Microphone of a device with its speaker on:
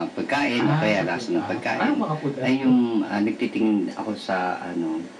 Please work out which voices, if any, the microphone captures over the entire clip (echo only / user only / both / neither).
both